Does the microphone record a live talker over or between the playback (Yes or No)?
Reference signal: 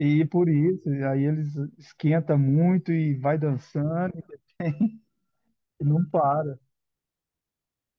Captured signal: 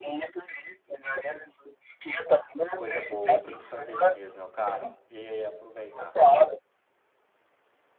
Yes